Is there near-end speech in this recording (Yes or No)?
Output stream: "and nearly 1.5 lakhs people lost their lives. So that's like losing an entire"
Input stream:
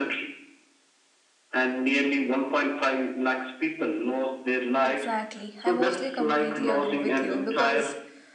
Yes